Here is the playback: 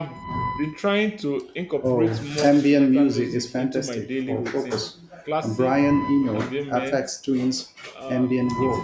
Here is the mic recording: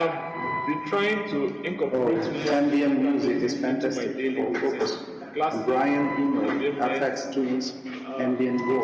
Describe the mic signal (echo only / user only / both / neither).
echo only